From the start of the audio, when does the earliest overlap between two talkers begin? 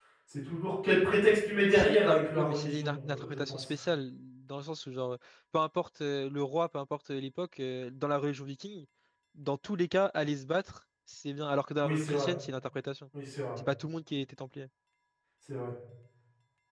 1.7 s

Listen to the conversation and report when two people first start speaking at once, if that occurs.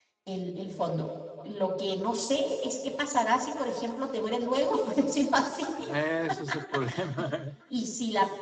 none

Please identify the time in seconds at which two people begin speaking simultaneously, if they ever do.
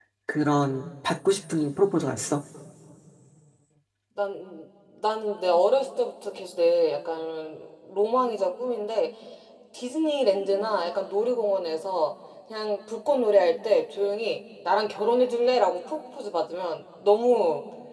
none

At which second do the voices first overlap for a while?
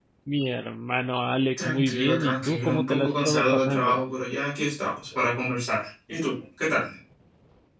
1.6 s

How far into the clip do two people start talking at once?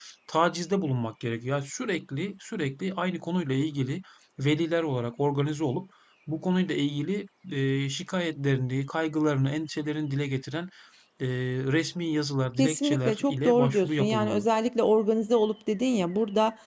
12.6 s

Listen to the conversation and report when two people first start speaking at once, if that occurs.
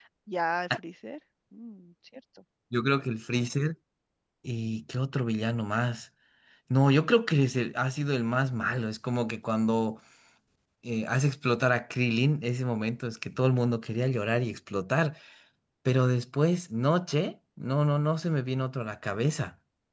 none

